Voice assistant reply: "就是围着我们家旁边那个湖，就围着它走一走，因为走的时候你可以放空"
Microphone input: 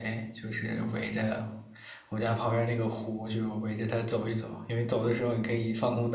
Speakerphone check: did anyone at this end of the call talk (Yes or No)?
No